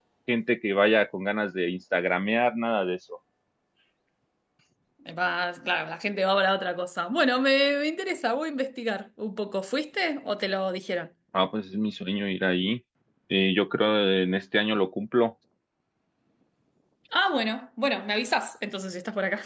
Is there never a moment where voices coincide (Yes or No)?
Yes